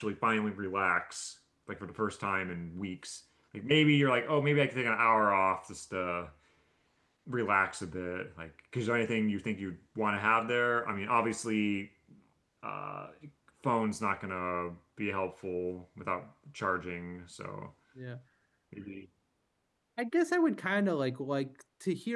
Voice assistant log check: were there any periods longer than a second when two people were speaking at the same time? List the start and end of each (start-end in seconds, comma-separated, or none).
none